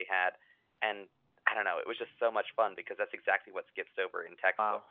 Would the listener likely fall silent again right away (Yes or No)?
No